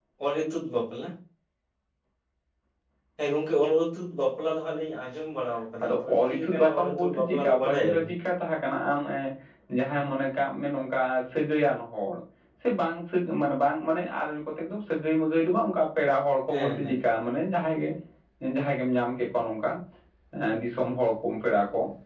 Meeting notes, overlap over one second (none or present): present